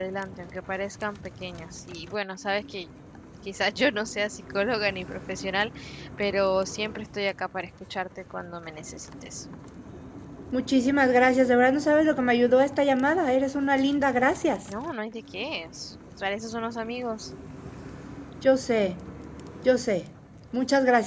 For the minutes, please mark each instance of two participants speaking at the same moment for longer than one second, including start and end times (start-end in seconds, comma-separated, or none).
none